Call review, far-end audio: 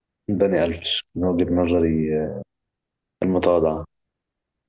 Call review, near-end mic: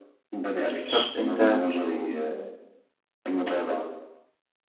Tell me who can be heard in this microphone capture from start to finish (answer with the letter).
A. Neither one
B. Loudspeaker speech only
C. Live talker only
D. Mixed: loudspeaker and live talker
D